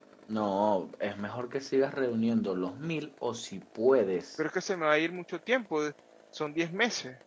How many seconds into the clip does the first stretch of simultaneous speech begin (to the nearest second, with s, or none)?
none